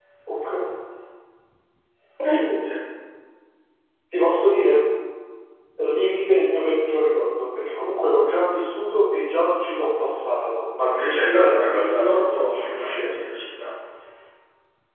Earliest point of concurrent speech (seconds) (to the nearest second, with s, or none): 11 s